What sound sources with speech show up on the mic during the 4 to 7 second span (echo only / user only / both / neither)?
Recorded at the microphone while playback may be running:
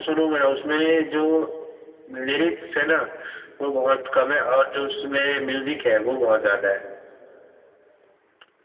echo only